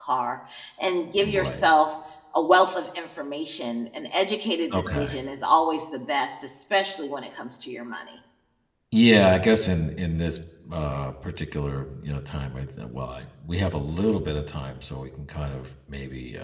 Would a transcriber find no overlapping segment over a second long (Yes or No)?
Yes